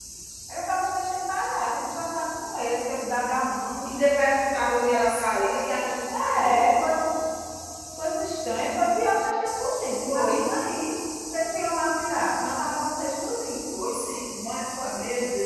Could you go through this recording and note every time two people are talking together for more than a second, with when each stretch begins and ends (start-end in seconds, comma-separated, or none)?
none